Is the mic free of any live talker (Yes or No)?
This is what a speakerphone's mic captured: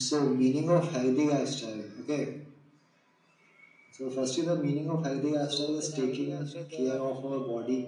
No